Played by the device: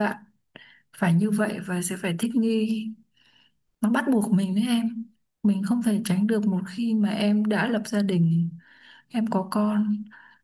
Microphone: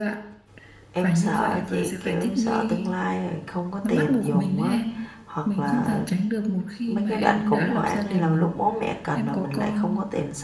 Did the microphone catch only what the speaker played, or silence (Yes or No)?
No